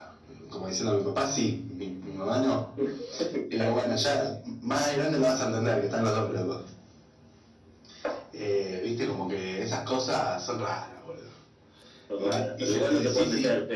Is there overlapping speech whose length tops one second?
Yes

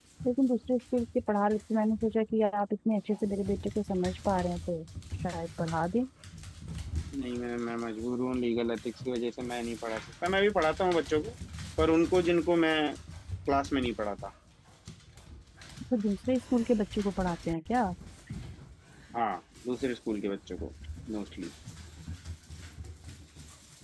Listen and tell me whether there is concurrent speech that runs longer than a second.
No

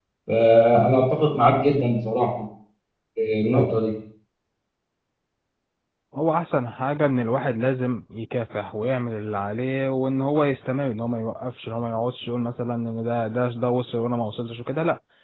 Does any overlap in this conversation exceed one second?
No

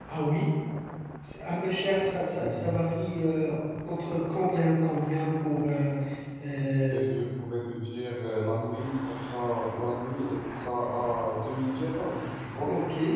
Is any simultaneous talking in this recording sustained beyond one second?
No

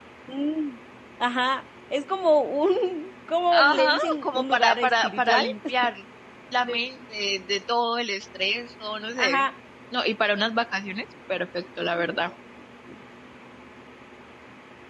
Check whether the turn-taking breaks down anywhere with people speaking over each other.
Yes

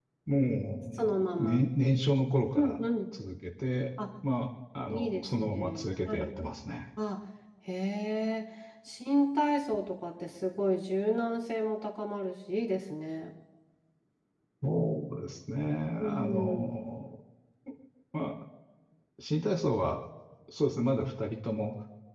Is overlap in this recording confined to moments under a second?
No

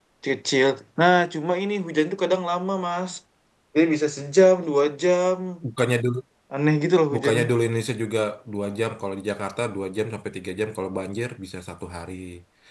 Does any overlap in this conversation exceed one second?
No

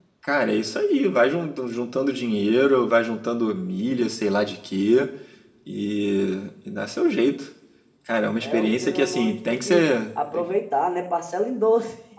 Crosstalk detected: Yes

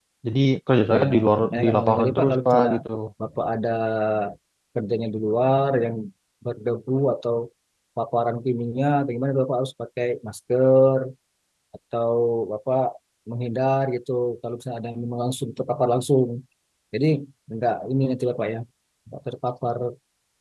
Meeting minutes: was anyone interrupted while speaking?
Yes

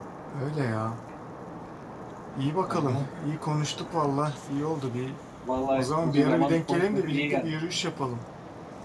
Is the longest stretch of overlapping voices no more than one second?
No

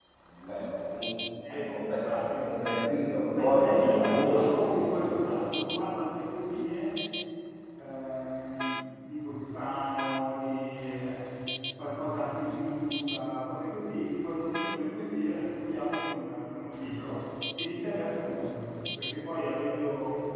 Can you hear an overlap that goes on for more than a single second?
Yes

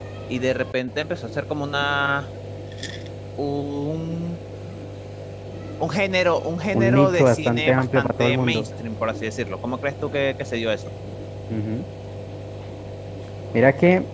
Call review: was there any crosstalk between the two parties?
Yes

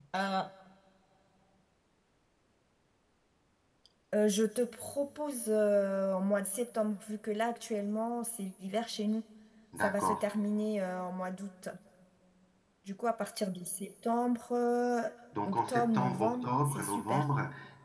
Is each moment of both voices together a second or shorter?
No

